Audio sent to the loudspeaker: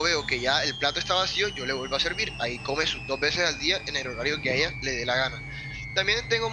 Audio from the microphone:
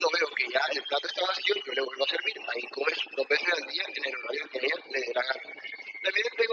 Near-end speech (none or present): none